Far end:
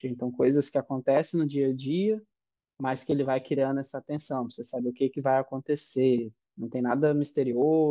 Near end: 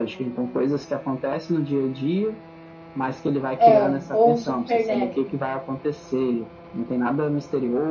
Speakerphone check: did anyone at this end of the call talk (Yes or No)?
Yes